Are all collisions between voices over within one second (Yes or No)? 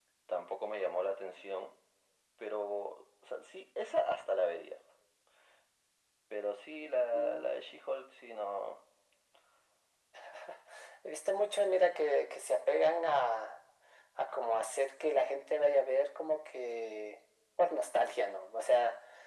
Yes